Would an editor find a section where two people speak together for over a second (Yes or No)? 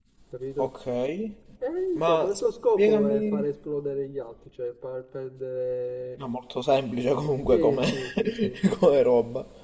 Yes